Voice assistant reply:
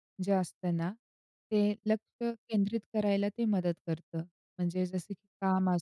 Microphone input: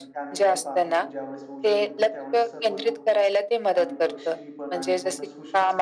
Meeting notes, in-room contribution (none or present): present